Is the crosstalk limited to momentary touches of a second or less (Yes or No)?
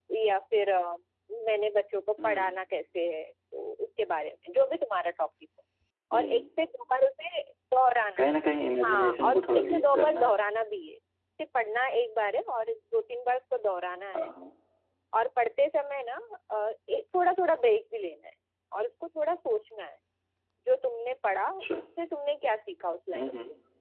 No